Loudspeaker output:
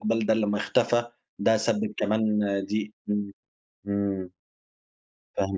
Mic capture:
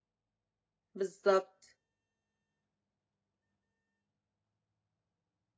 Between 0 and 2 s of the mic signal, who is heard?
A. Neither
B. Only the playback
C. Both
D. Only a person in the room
D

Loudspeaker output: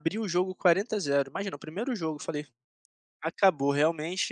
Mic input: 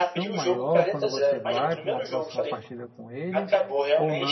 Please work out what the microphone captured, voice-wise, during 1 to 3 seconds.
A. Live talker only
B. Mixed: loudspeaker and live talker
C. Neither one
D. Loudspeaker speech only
B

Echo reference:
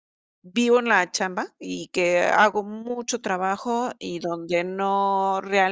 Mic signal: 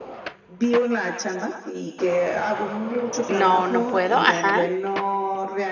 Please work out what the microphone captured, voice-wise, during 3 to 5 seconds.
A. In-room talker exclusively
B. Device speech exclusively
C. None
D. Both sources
D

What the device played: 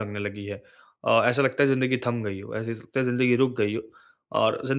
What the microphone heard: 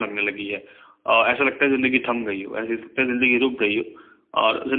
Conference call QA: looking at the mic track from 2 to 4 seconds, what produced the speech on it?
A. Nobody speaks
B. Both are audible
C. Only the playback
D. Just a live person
C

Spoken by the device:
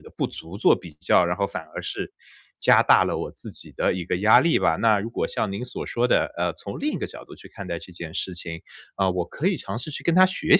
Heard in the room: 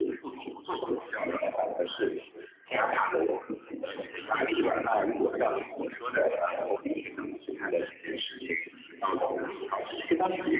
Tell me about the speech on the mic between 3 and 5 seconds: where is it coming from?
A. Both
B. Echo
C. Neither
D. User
B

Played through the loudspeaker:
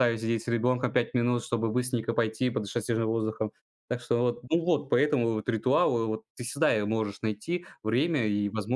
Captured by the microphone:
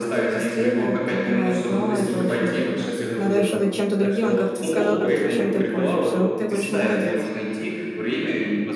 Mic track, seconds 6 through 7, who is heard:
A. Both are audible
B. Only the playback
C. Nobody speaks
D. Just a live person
A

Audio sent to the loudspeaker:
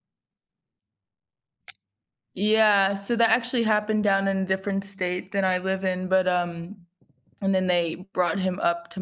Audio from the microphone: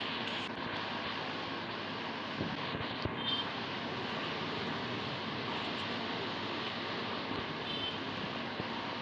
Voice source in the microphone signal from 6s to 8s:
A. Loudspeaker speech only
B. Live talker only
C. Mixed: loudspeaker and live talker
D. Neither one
D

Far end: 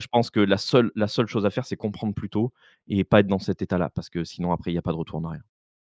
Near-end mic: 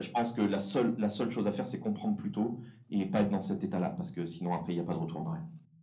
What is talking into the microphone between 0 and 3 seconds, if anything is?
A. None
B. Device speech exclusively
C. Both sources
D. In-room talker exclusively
B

